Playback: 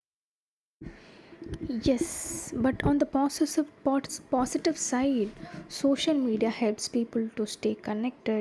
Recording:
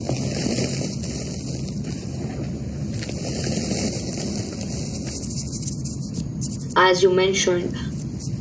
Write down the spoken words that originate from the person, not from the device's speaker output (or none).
As you mentioned,